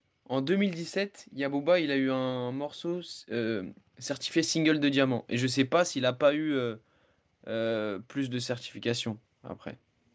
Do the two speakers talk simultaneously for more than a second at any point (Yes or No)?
No